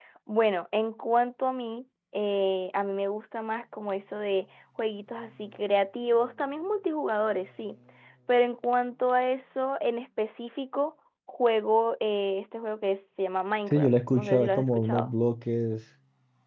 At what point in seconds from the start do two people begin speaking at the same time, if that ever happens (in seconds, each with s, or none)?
13.7 s